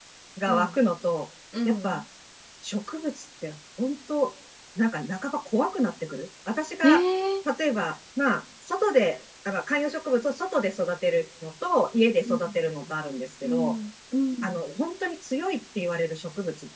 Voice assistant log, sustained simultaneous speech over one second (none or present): none